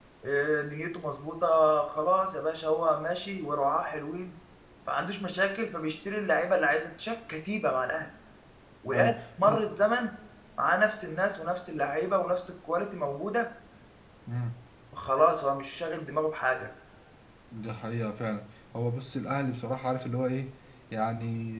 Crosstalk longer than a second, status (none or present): none